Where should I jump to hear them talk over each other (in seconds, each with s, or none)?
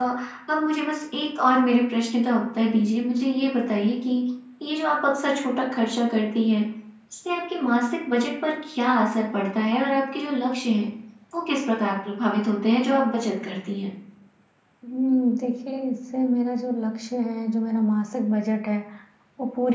none